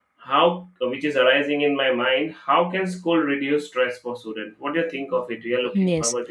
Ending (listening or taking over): taking over